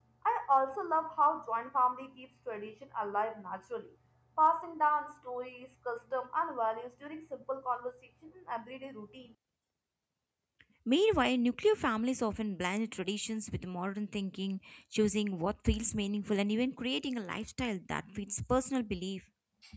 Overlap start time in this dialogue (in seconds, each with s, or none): none